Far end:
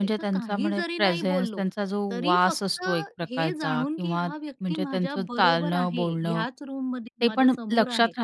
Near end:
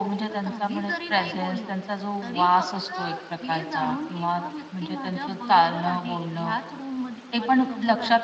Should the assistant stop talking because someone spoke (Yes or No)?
No